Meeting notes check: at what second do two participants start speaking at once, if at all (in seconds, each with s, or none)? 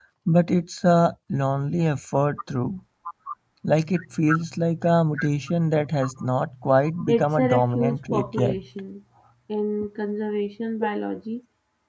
7.1 s